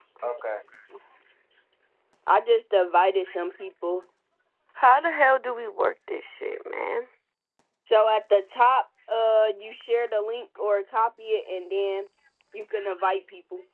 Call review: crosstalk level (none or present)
none